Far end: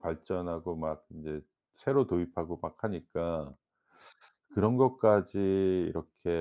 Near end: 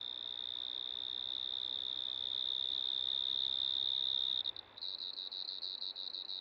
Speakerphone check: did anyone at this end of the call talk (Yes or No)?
No